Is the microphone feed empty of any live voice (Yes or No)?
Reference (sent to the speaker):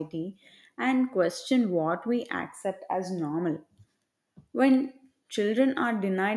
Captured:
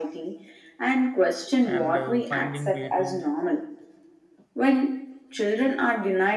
No